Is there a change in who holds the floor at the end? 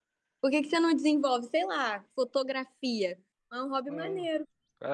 Yes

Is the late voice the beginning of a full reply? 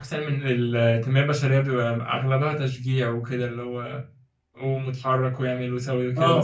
Yes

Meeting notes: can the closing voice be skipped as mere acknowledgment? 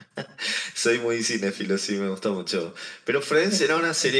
Yes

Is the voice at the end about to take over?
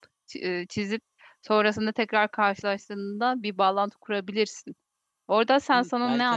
Yes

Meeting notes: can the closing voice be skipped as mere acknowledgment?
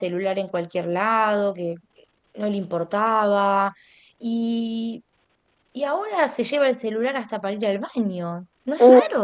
No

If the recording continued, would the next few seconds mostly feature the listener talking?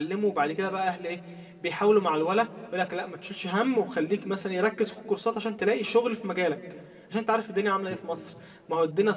No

